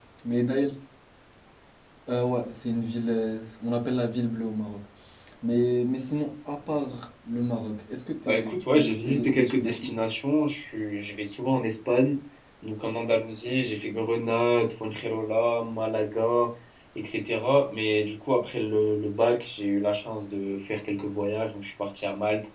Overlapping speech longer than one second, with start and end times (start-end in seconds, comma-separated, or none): 8.2-9.9